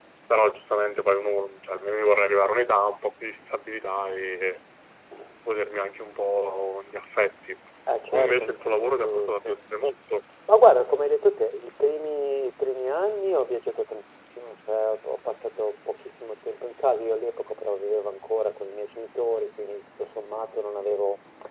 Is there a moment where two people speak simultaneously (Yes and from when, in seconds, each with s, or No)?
Yes, from 8.1 s